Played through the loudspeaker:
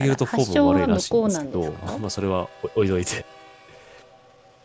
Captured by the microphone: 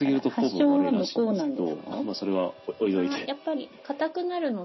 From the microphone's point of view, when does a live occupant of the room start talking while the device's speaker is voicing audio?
2.9 s

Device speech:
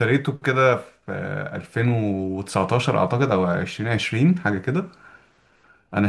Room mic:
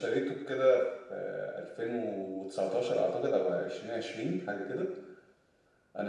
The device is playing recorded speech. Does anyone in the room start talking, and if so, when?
none

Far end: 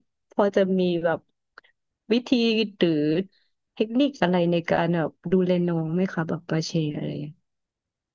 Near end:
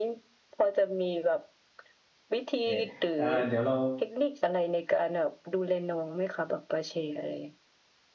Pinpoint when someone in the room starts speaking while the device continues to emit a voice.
2.6 s

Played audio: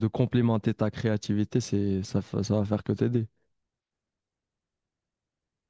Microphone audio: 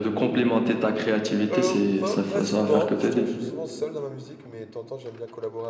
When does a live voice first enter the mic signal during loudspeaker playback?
1.5 s

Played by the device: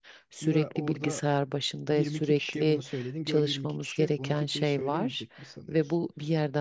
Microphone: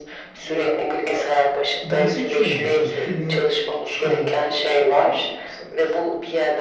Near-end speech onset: 1.8 s

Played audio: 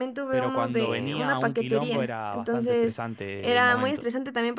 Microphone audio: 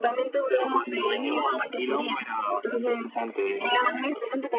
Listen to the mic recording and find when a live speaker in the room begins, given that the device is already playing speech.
none

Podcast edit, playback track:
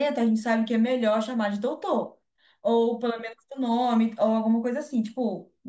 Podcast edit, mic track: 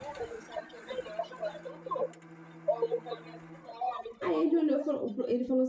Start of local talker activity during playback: 4.2 s

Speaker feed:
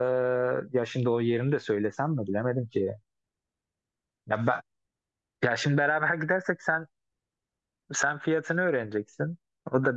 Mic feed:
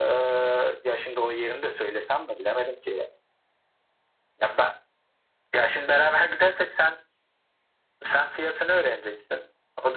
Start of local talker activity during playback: none

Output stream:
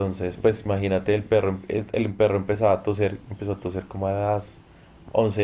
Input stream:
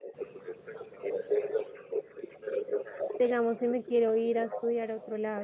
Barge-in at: 3.2 s

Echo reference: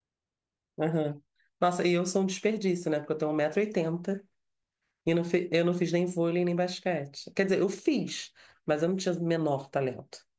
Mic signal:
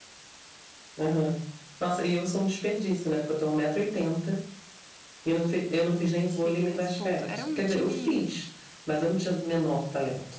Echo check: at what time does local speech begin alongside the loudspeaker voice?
6.2 s

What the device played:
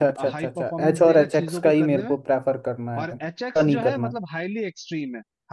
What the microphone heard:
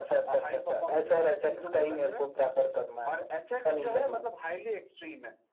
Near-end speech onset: none

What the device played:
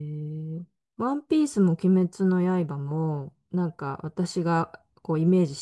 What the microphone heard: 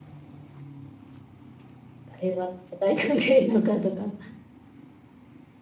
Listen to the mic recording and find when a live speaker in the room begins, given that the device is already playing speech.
2.2 s

